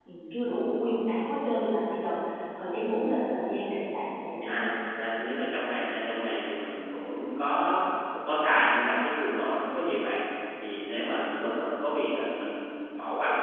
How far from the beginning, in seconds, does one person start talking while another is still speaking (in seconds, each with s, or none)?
none